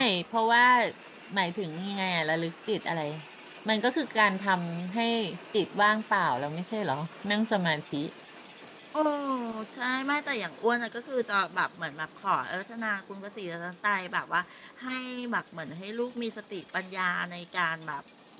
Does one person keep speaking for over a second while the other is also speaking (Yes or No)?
No